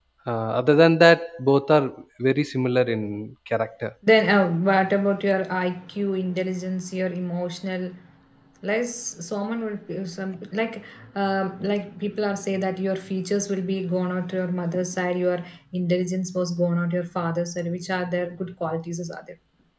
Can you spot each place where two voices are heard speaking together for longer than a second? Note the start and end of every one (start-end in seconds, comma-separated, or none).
none